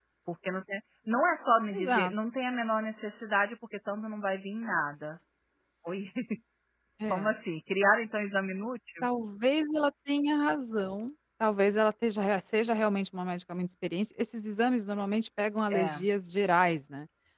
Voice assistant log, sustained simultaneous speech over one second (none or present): none